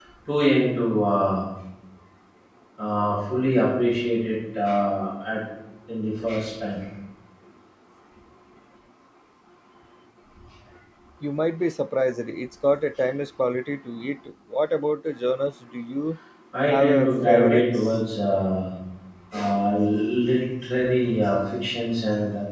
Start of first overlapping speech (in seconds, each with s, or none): 16.7 s